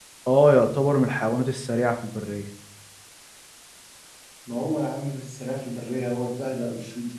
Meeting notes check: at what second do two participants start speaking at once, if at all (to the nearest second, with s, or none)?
none